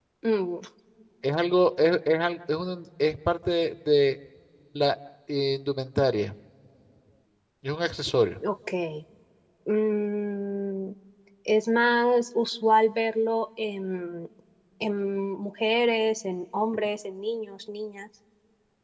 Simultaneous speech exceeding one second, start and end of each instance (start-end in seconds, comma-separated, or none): none